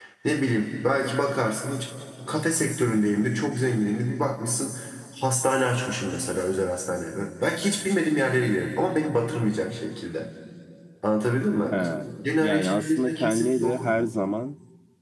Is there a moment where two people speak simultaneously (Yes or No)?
Yes